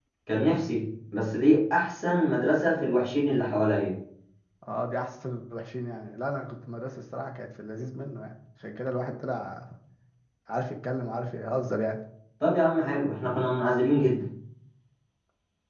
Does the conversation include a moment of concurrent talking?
No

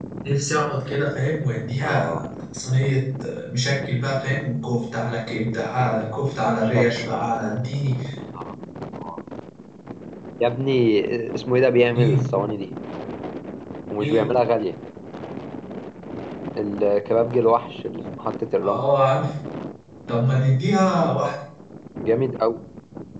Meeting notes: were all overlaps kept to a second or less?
Yes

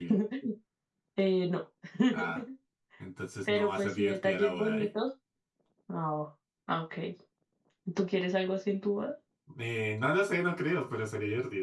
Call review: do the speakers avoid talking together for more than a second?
No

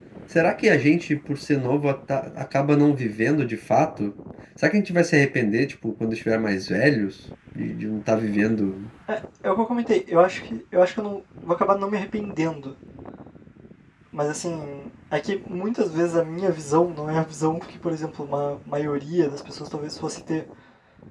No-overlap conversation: Yes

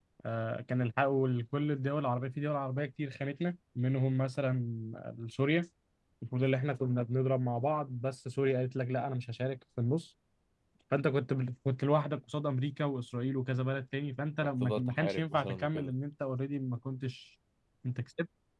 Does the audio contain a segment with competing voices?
Yes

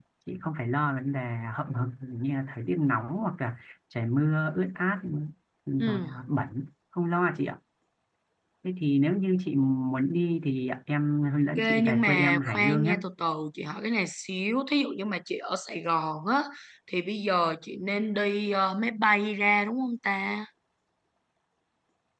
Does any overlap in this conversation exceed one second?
Yes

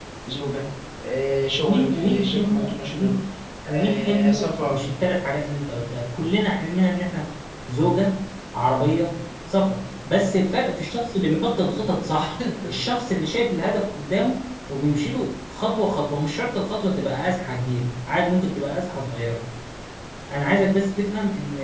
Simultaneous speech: Yes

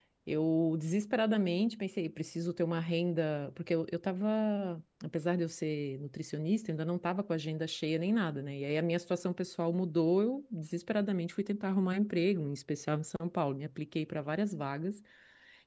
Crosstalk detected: No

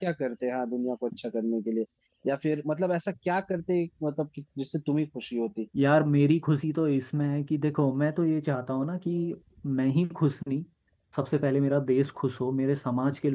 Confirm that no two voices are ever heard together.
Yes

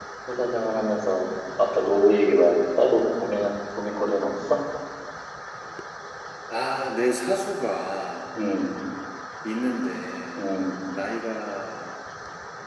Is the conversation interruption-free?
Yes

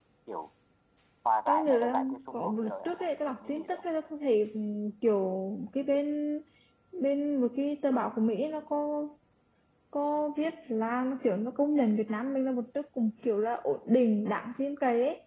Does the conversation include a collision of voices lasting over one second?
Yes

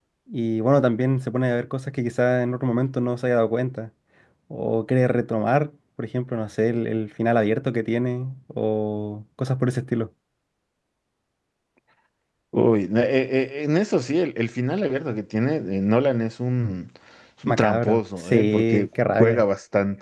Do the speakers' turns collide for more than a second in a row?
Yes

